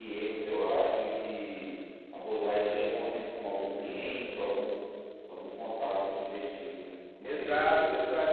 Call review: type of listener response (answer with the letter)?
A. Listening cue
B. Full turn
B